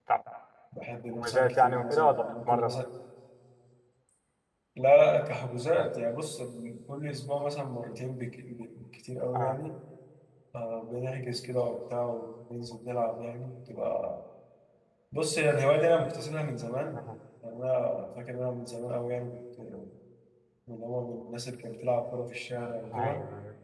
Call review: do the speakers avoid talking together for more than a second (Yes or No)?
No